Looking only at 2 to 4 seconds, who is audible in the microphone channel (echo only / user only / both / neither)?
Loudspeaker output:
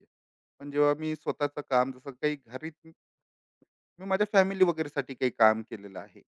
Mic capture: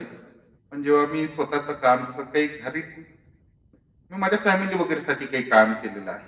echo only